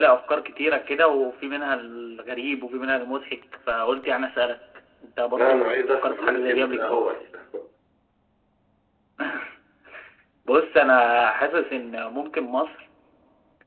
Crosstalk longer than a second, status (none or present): present